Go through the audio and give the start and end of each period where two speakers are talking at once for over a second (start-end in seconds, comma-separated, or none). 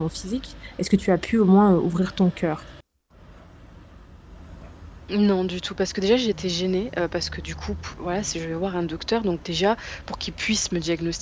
none